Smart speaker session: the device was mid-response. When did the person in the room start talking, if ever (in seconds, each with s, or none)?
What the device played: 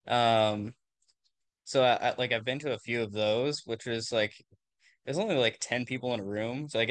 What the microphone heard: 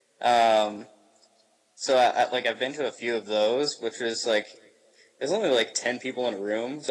none